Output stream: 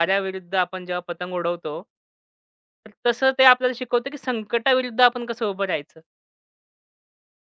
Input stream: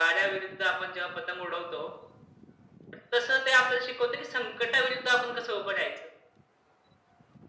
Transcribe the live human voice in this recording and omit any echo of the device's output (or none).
none